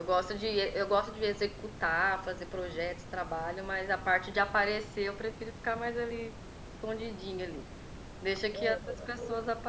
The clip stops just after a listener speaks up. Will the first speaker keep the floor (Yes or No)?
Yes